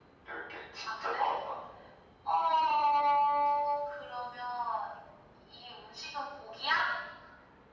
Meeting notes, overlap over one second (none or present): none